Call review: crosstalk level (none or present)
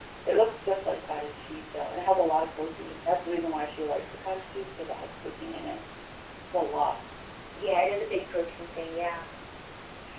none